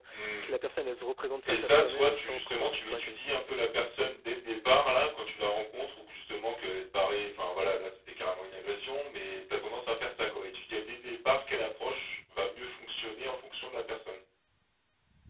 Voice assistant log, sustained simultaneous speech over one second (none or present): present